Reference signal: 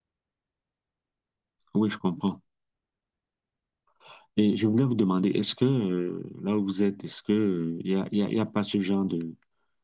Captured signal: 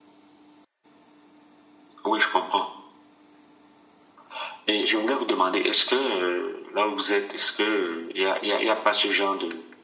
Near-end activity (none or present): none